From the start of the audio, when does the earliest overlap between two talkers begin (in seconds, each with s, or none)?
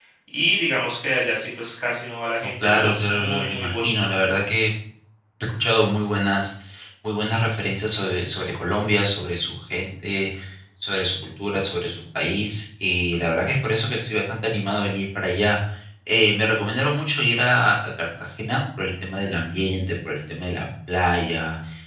2.4 s